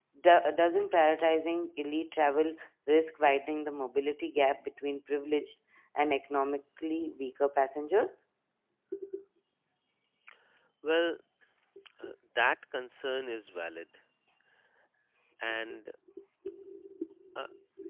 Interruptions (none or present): none